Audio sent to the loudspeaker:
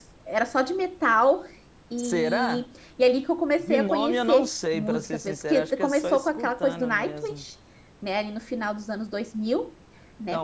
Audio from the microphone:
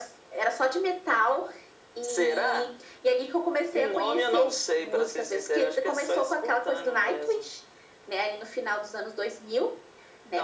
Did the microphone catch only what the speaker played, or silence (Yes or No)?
Yes